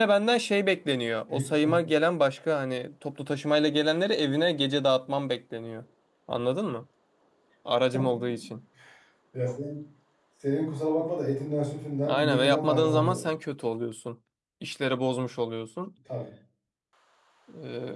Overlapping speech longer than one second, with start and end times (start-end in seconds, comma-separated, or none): 12.1-13.3